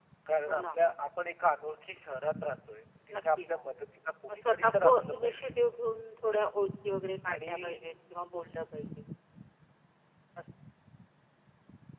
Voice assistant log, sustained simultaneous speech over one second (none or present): present